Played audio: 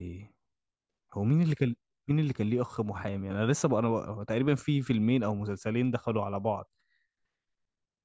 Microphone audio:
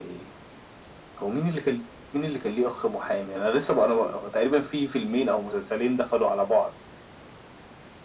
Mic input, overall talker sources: echo only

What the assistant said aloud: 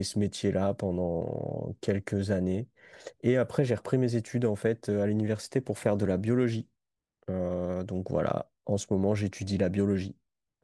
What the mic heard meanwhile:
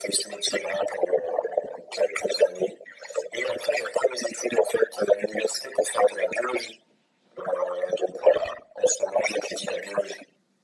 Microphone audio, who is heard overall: echo only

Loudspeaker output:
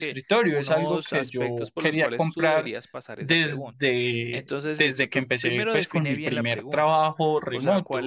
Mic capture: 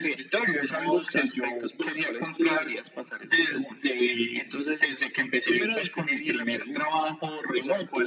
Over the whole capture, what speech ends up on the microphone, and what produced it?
echo only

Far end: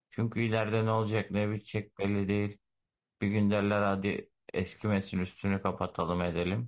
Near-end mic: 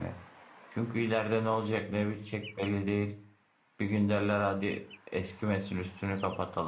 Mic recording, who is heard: echo only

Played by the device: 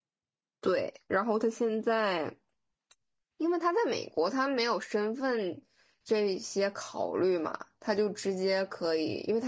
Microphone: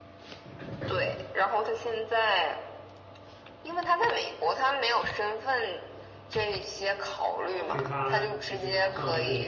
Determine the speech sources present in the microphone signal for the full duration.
both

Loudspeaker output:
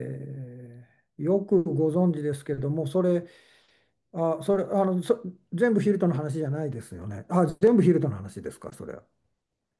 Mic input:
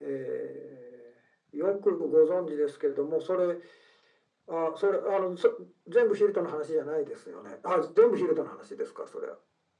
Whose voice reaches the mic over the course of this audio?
echo only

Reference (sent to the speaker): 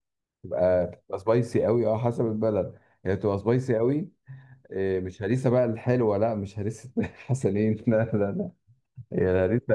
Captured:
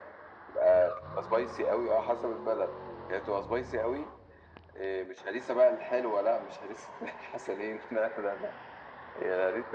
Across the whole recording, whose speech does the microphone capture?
echo only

